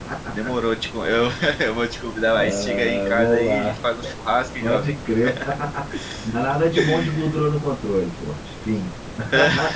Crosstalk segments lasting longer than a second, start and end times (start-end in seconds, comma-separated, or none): 2.5-3.8